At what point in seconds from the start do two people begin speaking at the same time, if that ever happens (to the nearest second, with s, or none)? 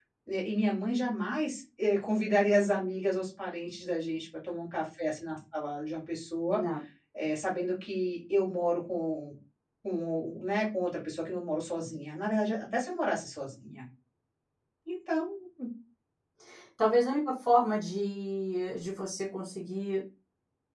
none